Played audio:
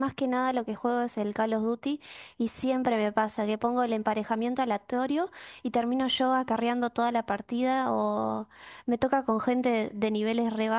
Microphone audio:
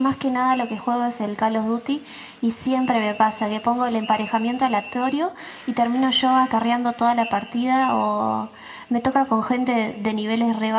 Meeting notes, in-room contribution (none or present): none